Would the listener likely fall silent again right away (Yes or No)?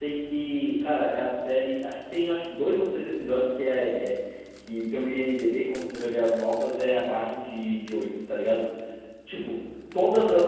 Yes